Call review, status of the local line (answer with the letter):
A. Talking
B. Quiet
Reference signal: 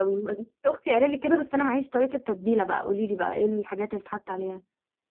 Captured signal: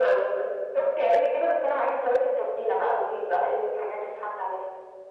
B